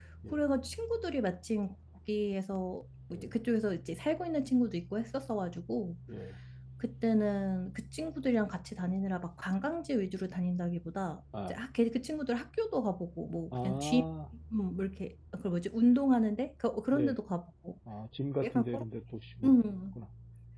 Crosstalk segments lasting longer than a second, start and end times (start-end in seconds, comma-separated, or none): none